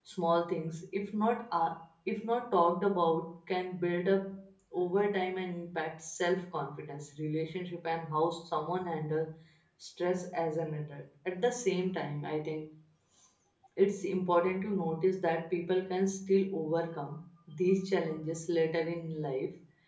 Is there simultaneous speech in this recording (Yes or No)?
No